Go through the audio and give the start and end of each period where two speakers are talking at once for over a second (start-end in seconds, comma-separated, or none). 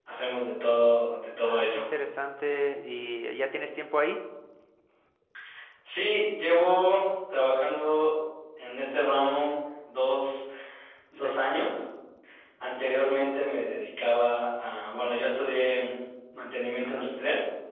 none